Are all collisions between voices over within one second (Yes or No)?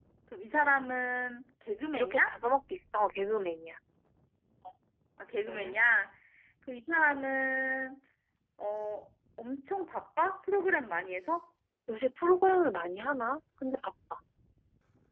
Yes